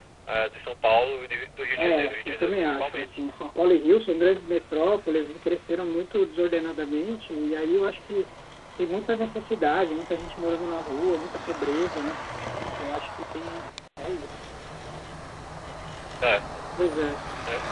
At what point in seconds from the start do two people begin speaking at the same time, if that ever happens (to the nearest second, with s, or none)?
2 s